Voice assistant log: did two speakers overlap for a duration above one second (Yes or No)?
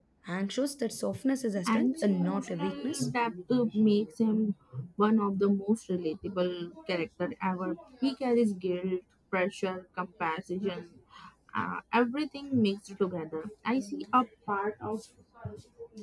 Yes